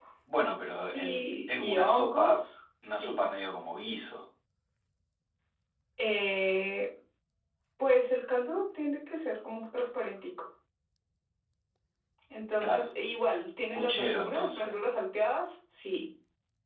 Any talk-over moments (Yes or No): Yes